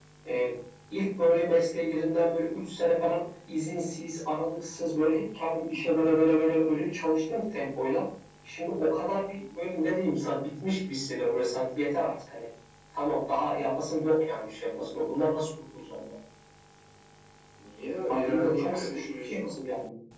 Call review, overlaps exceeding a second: present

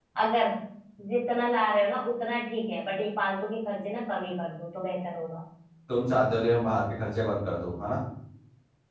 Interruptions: none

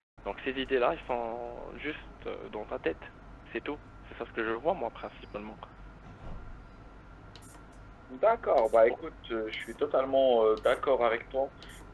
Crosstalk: none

